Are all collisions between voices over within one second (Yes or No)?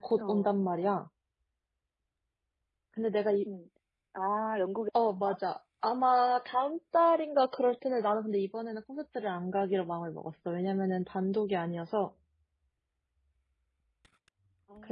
Yes